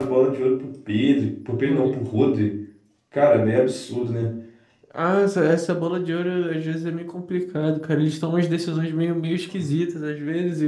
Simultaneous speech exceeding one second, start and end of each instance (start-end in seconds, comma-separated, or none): none